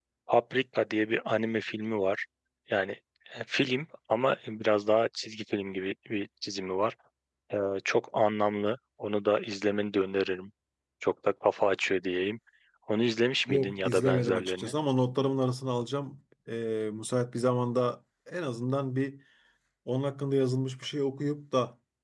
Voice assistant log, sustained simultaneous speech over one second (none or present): present